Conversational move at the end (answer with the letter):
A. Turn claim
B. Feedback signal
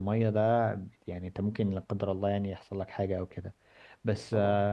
B